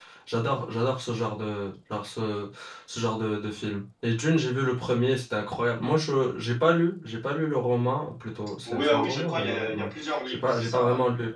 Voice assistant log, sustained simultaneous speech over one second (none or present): present